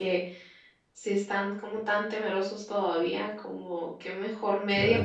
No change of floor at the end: Yes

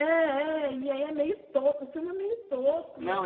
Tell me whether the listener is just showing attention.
No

